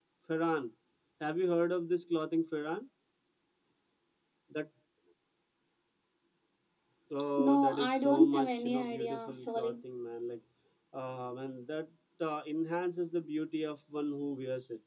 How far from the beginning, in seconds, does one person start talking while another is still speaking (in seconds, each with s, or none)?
7.4 s